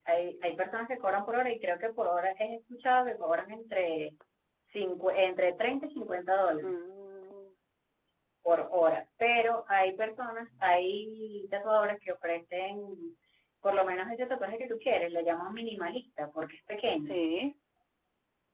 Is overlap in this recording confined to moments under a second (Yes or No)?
Yes